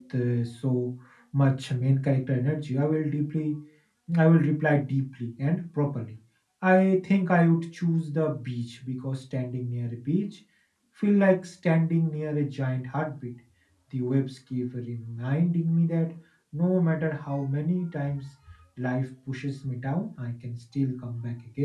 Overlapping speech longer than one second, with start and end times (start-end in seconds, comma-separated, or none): none